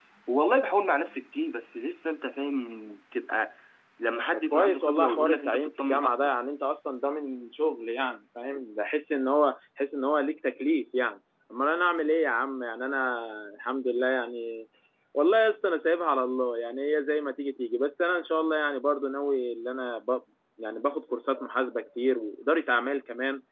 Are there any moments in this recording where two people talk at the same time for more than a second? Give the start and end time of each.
4.3-6.3

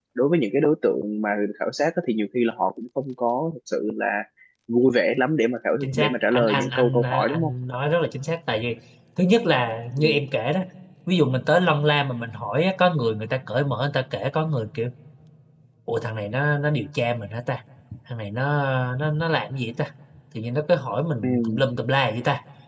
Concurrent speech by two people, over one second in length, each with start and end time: 5.8-7.5

